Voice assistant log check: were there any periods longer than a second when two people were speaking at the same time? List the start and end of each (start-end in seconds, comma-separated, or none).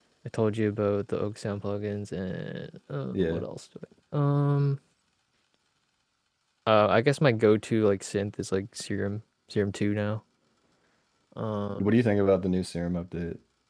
none